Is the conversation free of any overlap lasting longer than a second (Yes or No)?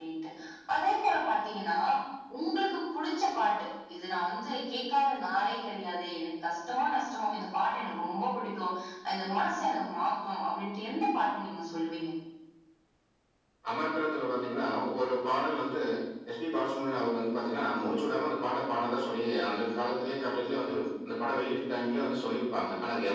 Yes